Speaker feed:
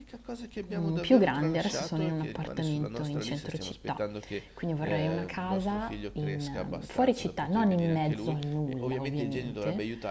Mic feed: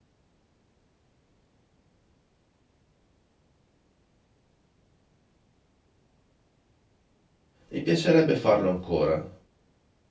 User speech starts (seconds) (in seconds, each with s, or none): 7.7 s